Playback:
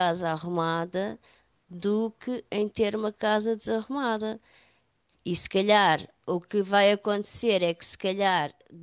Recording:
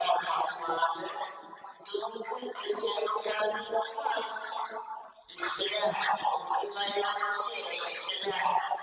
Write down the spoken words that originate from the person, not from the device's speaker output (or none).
none